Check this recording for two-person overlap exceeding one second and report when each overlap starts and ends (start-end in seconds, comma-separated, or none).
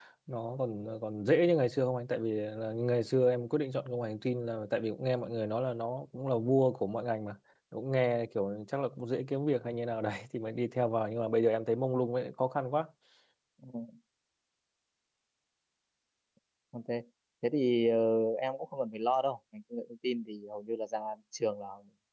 none